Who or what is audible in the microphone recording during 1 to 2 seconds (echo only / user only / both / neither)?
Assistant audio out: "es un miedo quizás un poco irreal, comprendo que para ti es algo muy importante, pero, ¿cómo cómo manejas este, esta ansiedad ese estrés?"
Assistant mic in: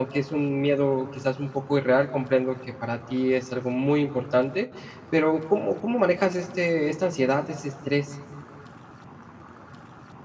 echo only